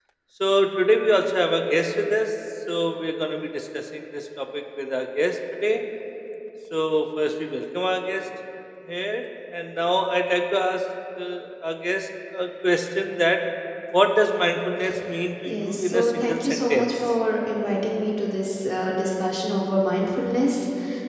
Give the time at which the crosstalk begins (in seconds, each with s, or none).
15.5 s